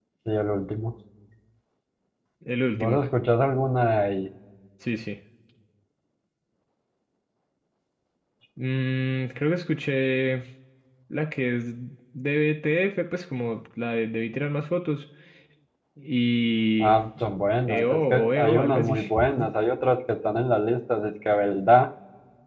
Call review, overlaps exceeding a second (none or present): present